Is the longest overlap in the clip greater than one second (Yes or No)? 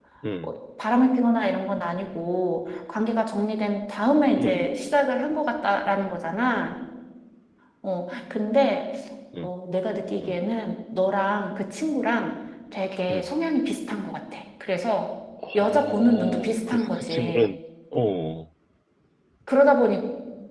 Yes